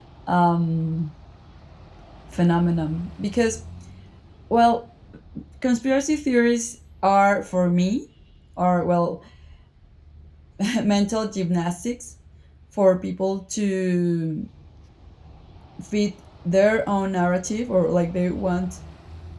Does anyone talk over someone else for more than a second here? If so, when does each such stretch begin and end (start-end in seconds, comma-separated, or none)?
none